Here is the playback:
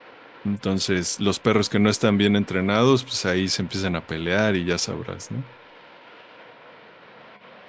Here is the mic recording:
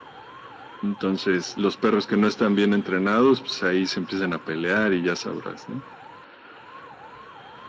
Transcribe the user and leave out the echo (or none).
none